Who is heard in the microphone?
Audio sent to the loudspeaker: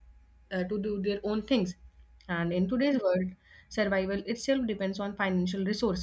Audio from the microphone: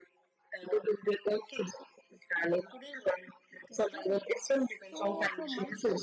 both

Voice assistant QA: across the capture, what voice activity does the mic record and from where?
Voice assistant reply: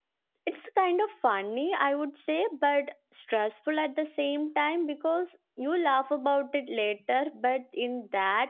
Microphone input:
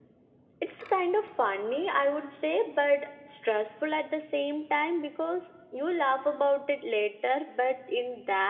echo only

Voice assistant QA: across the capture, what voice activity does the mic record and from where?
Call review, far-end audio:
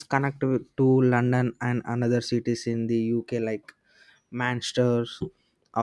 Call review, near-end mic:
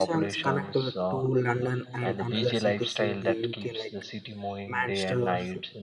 both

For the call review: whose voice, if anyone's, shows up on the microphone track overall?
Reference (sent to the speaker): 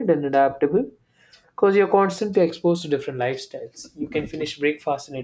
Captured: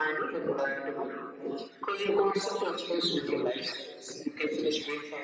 echo only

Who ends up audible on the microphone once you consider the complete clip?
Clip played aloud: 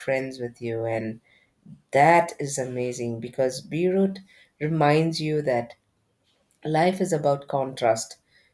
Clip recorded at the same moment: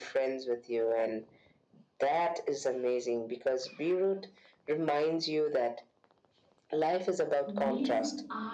both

